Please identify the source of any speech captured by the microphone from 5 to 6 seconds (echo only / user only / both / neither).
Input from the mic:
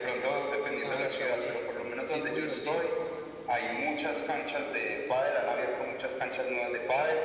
echo only